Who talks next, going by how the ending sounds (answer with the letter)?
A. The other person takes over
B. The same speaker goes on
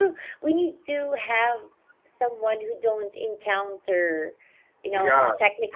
A